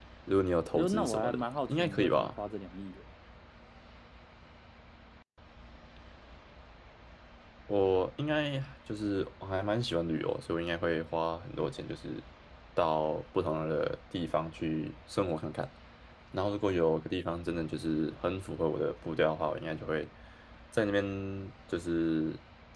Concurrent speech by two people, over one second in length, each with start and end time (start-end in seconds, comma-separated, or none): 0.7-2.3